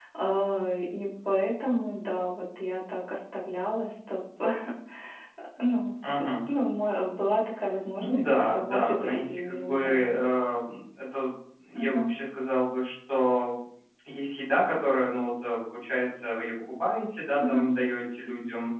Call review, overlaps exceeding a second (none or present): present